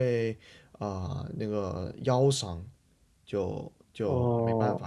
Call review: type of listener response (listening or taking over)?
listening